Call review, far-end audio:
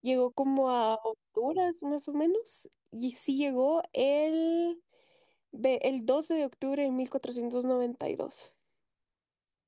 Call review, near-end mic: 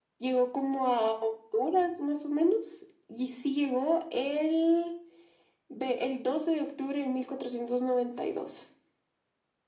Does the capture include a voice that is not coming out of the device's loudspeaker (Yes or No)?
No